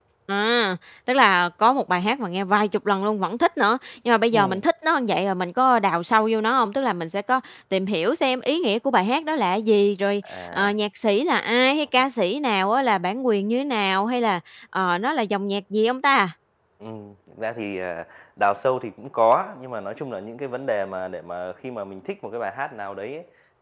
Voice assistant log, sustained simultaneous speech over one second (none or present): none